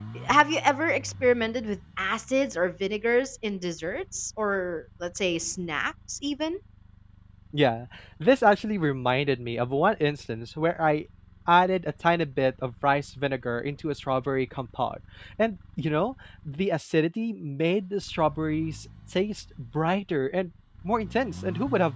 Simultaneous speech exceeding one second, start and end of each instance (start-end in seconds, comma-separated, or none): none